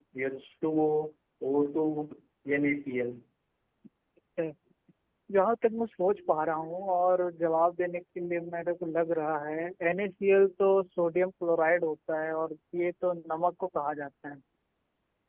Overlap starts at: none

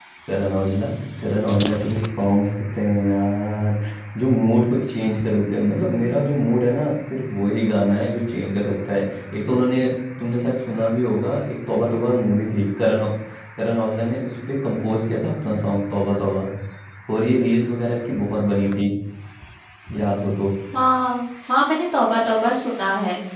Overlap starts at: none

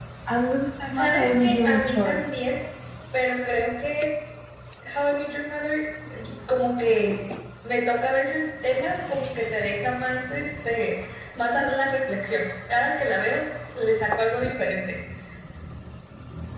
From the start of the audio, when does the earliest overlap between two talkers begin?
1 s

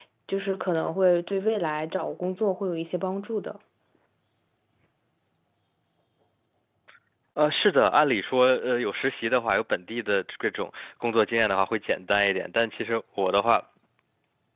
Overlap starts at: none

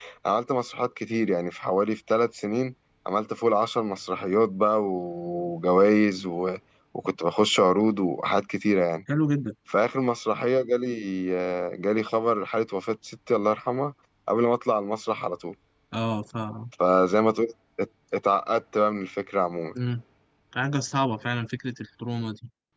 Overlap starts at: none

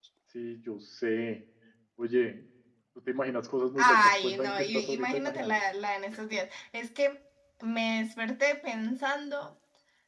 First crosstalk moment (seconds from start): 4 s

